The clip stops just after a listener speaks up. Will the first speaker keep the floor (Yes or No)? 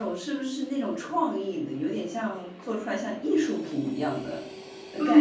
No